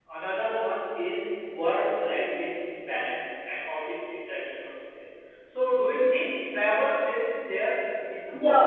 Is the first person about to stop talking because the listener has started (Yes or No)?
Yes